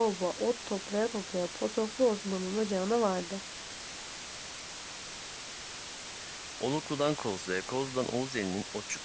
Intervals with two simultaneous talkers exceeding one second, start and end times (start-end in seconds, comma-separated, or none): none